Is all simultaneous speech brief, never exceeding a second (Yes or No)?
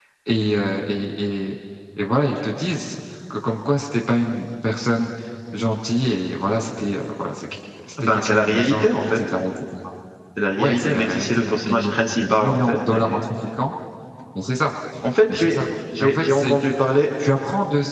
No